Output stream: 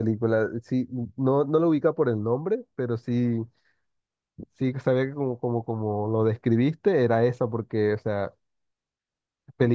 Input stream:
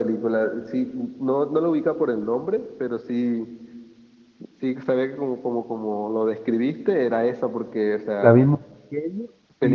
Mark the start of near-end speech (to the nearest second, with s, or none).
8 s